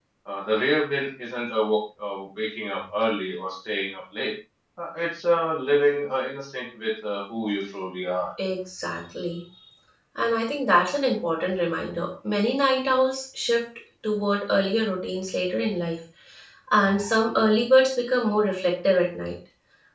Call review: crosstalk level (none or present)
none